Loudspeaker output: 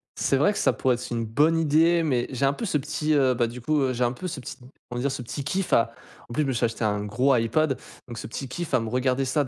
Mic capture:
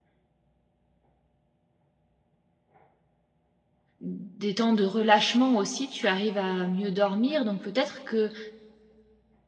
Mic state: user only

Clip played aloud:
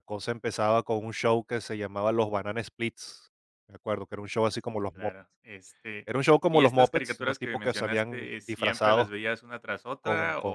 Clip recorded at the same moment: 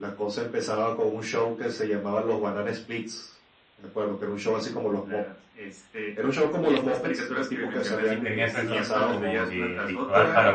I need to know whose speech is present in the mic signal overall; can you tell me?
both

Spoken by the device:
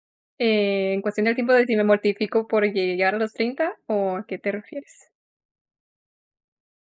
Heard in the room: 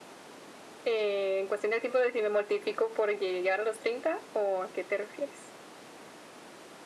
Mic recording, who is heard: echo only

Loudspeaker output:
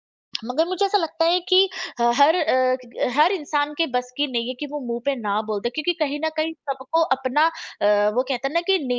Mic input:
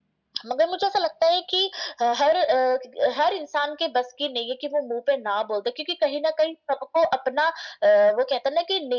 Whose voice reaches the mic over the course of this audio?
echo only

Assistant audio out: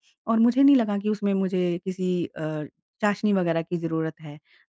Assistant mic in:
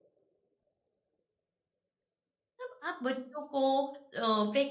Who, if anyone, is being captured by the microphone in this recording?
user only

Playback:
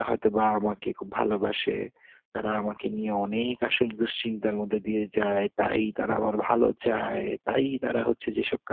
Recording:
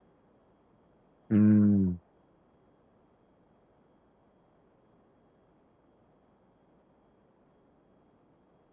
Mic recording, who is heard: user only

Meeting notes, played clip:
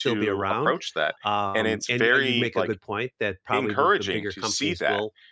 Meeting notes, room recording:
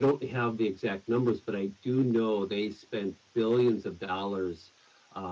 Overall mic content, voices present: user only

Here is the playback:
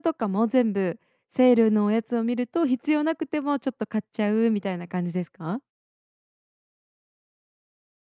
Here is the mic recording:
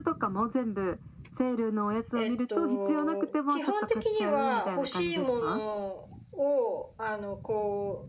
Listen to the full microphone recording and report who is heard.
both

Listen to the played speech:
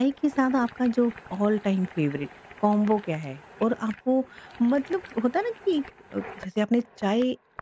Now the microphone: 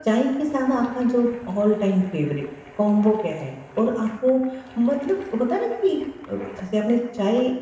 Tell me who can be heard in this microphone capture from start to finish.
echo only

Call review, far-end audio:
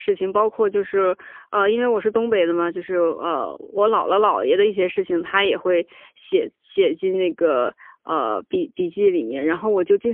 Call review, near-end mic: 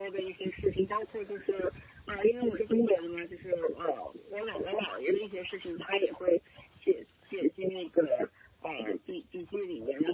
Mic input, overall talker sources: echo only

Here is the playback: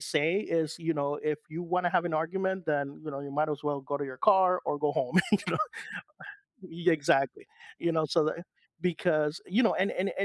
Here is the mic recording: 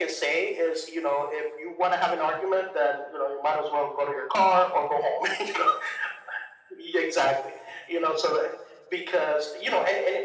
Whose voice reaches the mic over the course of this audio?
echo only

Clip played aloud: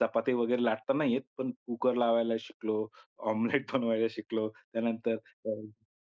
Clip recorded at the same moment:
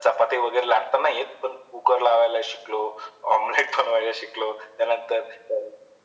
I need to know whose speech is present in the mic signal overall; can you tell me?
echo only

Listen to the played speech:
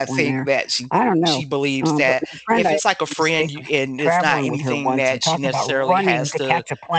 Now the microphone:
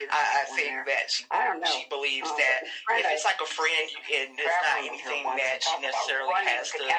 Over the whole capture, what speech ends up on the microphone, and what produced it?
echo only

